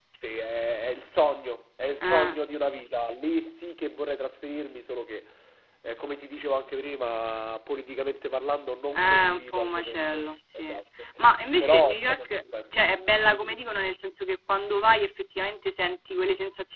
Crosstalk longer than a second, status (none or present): present